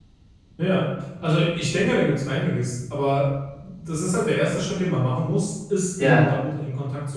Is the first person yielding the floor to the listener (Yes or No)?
No